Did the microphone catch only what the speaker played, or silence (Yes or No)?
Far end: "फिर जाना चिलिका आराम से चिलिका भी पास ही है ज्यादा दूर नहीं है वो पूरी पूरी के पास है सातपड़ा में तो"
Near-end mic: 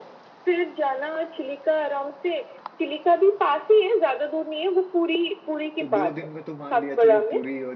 No